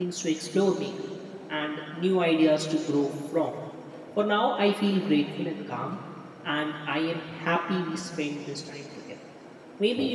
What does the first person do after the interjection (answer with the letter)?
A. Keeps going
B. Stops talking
A